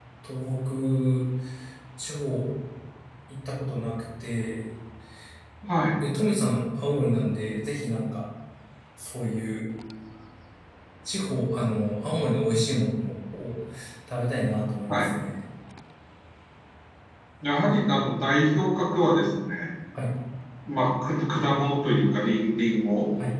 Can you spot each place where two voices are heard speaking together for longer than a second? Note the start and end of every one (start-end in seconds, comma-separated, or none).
none